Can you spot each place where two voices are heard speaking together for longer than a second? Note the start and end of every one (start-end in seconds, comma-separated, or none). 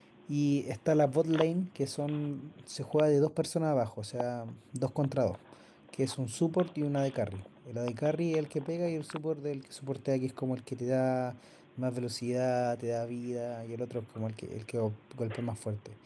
none